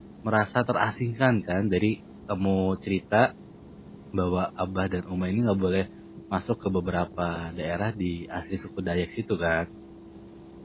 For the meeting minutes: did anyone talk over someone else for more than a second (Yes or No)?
No